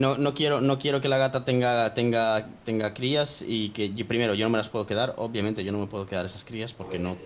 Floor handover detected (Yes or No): No